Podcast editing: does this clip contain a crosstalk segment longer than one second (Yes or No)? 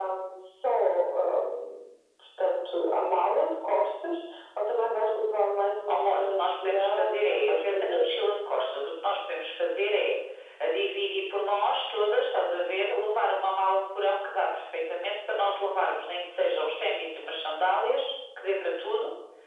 Yes